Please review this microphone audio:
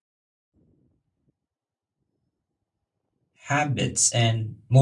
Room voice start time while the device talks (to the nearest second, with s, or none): 3 s